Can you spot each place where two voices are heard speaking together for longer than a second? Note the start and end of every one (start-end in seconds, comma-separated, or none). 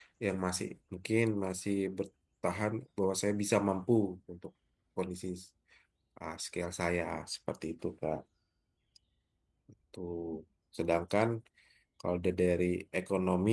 none